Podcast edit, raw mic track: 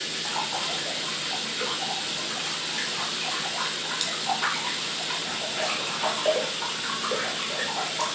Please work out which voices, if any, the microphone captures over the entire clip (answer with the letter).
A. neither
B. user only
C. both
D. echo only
A